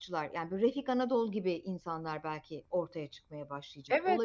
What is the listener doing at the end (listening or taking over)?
taking over